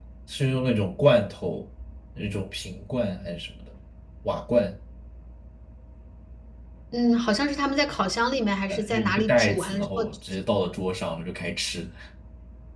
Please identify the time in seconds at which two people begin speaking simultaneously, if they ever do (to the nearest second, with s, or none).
9 s